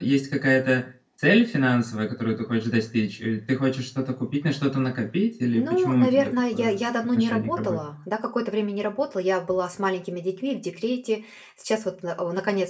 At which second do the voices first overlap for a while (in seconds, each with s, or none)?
5.6 s